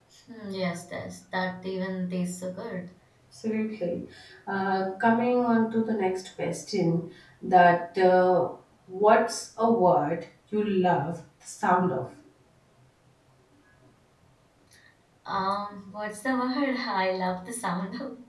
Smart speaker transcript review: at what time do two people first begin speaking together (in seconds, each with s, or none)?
none